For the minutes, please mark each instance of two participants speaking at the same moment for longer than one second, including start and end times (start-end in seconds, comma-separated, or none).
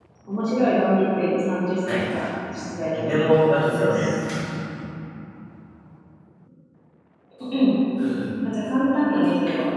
3.0-4.2